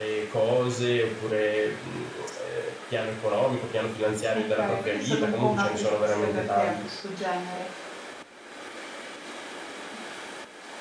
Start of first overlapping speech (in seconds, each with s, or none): 4.3 s